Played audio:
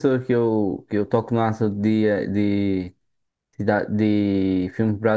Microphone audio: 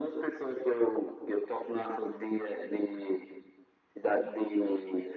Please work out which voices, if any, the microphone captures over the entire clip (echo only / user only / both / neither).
echo only